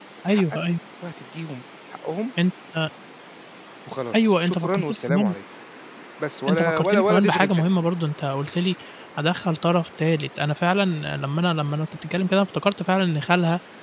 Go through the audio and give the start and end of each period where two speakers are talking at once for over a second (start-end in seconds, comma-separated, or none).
4.2-5.4, 6.5-7.7